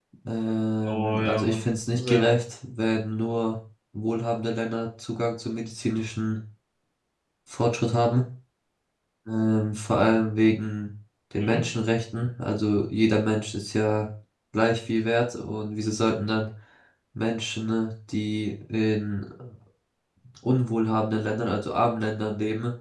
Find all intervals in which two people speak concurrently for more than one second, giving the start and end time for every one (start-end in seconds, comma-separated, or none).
0.8-2.3